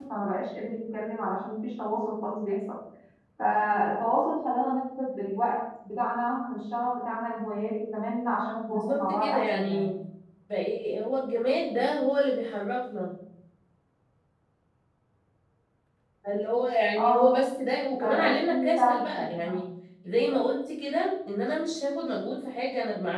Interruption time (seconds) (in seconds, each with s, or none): 8.7 s